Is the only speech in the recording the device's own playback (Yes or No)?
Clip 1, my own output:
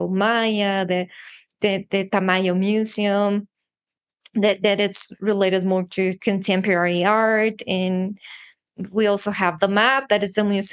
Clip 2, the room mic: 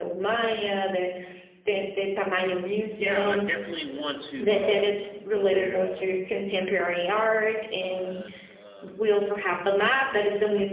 No